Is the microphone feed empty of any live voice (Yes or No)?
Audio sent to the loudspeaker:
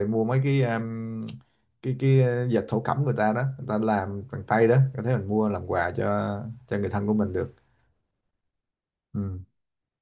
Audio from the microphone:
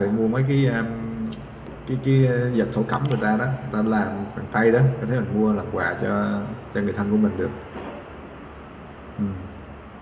Yes